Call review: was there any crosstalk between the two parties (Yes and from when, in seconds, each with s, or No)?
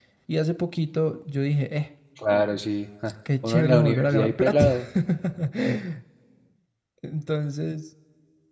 Yes, from 3.2 s